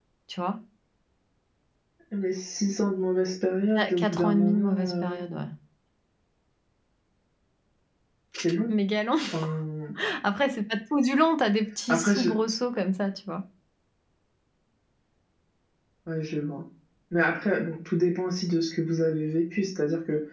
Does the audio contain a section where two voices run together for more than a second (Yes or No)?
Yes